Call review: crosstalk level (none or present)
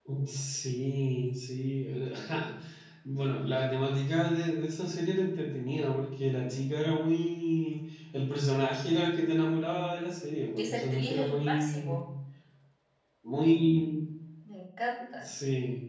present